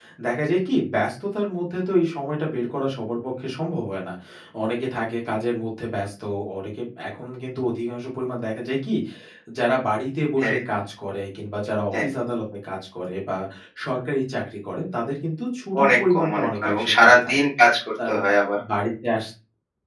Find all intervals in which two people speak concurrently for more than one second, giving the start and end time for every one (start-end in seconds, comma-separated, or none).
15.8-17.3